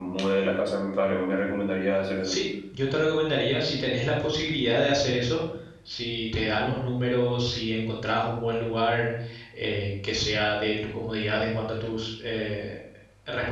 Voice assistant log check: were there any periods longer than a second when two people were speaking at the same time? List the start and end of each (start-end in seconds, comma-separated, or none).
none